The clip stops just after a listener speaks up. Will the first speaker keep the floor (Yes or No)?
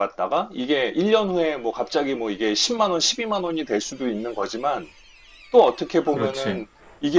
Yes